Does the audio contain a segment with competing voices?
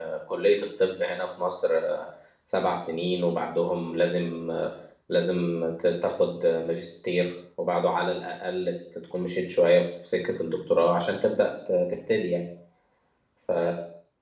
No

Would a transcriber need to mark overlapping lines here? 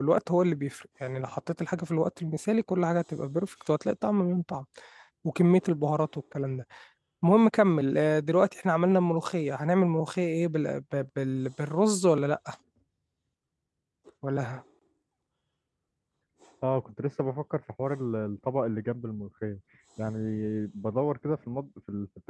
No

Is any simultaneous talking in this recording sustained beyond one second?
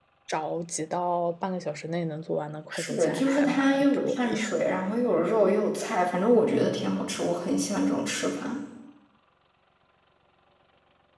Yes, from 2.7 s

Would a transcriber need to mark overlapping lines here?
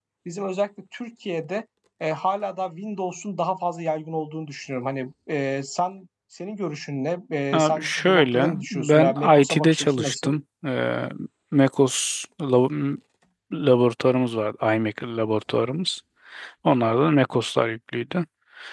Yes, from 7.5 s

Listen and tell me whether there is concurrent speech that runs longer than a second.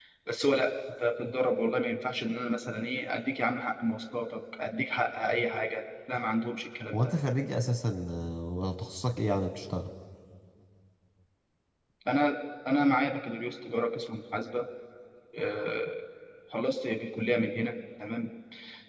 No

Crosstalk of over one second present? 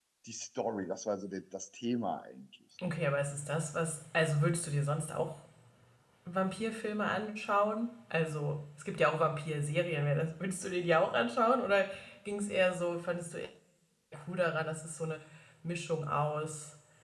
No

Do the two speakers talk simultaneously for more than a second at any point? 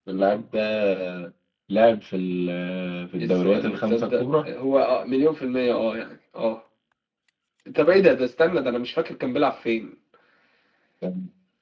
Yes, from 3.2 s

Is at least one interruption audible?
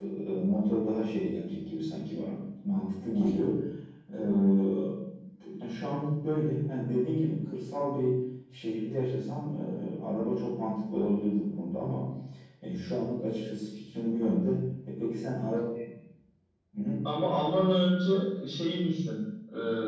No

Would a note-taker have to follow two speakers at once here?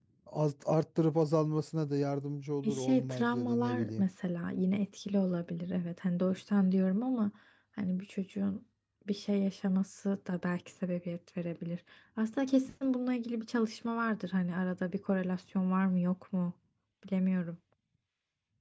Yes, from 2.6 s

